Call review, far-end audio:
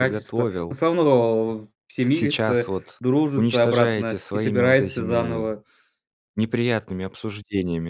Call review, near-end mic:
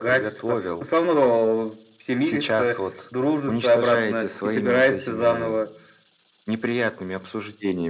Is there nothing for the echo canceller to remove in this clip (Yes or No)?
No